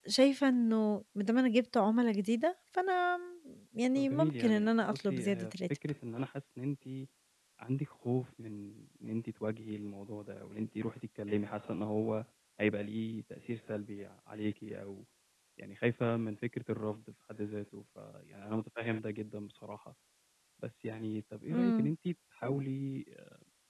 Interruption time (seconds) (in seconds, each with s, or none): 4.0 s